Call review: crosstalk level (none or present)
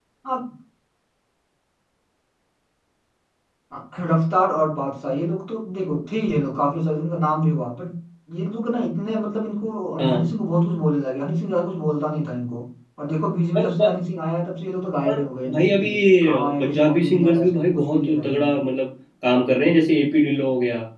present